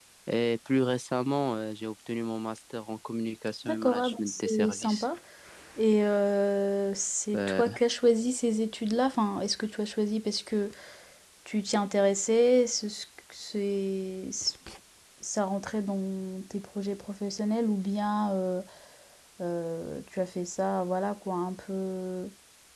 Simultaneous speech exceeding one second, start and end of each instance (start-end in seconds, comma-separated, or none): 3.6-5.1